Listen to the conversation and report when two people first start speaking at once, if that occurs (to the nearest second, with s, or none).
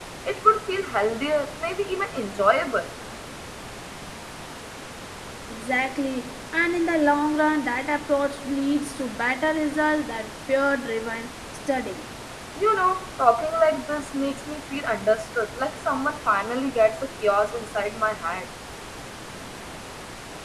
none